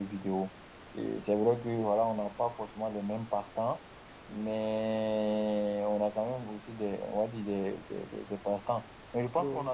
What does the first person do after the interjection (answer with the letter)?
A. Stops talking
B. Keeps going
B